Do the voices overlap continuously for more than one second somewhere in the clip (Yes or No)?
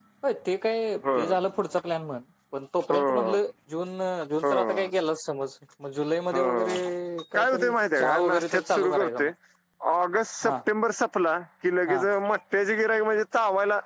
Yes